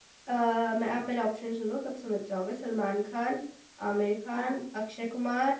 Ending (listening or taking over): listening